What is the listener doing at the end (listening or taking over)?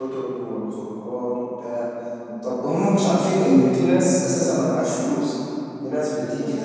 listening